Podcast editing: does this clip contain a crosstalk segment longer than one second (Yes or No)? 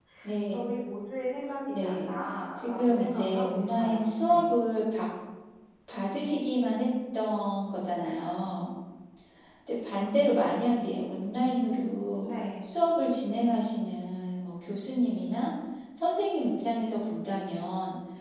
Yes